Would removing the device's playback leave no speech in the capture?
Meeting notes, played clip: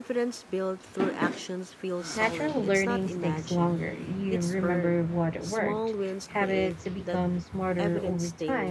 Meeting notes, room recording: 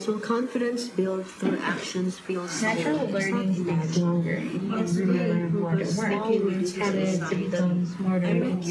No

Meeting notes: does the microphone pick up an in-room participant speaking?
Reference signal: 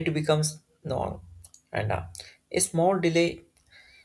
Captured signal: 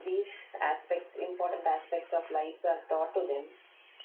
Yes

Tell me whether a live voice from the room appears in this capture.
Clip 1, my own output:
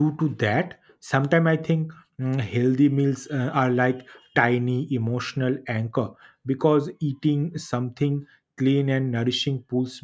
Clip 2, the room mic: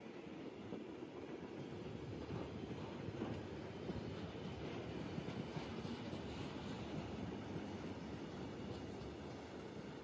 No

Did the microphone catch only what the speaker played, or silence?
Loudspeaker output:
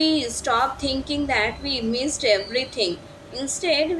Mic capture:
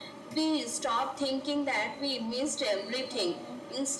No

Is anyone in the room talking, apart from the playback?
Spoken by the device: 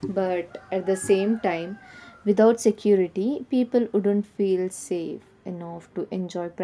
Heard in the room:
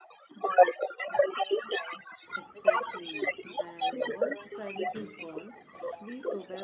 Yes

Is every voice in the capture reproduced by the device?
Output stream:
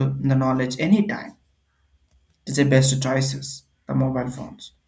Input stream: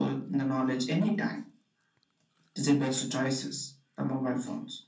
Yes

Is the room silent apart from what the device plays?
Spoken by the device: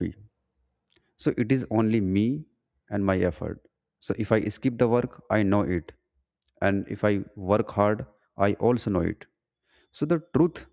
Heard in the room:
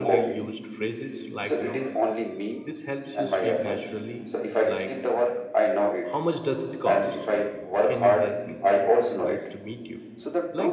No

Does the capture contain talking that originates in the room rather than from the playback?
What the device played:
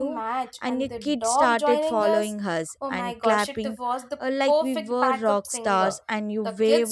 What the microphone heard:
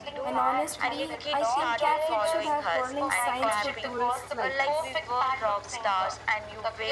Yes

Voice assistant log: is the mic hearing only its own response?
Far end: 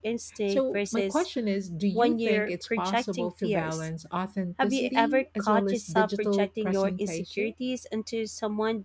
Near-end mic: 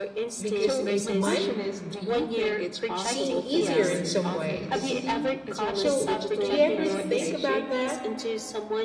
No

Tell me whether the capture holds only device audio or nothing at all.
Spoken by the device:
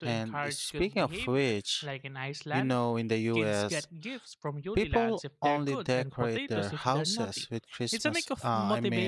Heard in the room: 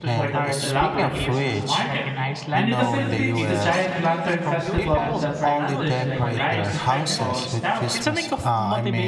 No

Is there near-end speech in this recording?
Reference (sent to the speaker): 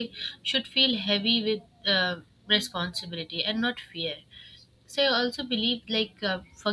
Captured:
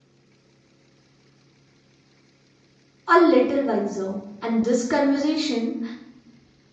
Yes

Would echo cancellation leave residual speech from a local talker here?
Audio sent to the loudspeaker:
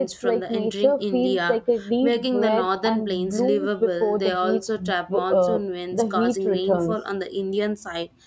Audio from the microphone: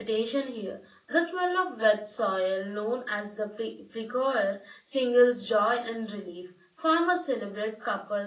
Yes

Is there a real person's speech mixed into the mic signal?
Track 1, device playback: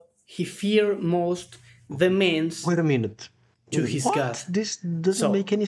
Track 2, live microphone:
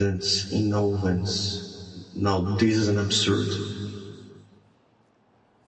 Yes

